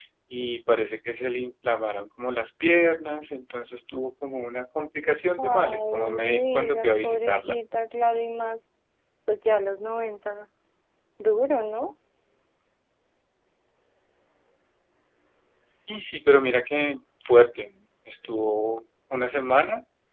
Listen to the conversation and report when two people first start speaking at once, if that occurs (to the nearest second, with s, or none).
5 s